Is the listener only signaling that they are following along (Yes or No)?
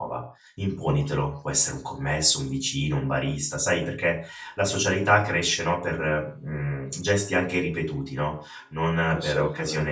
Yes